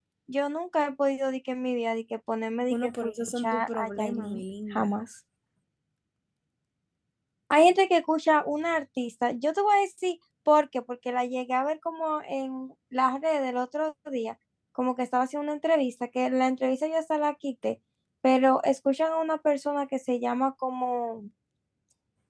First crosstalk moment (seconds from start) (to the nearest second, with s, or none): 3 s